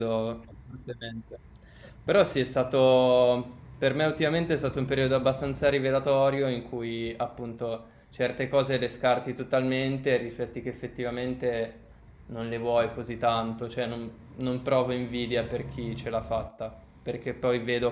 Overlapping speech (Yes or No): No